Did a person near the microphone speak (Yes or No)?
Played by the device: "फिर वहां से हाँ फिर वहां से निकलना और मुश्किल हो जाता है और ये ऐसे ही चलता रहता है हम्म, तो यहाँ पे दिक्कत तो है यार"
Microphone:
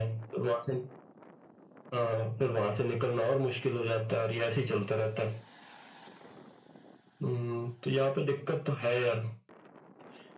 No